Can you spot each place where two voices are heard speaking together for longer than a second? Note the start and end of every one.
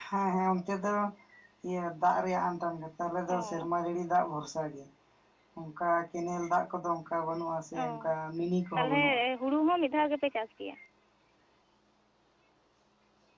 none

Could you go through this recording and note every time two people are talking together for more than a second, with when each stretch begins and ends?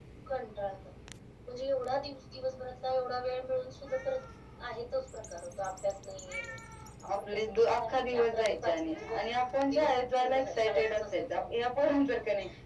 7.2-9.3, 9.7-11.7

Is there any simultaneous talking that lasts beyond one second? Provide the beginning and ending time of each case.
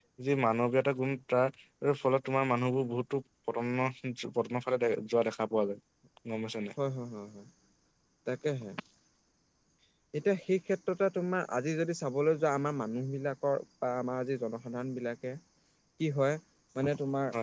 none

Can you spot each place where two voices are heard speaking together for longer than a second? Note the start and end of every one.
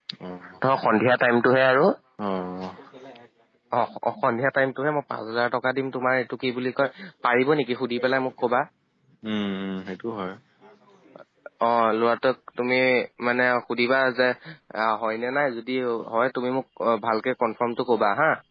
none

